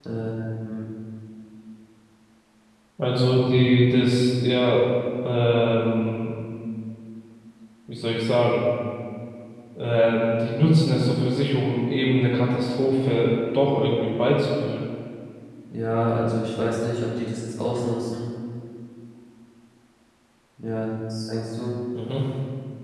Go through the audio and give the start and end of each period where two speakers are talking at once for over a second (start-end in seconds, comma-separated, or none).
none